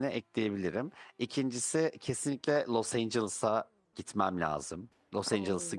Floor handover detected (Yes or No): Yes